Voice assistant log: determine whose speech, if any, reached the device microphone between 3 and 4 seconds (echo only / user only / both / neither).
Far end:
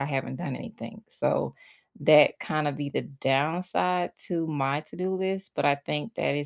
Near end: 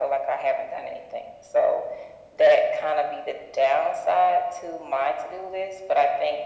echo only